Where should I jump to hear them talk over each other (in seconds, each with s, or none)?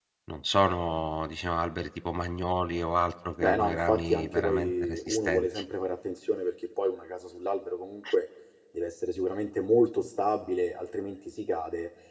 3.4 s